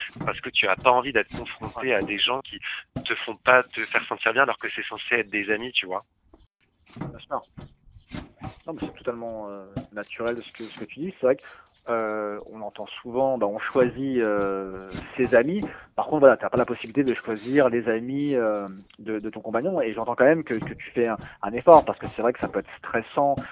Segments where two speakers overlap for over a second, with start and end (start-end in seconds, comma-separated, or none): none